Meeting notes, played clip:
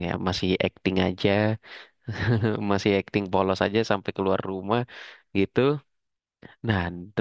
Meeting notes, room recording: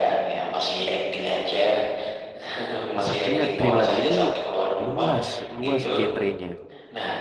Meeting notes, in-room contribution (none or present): present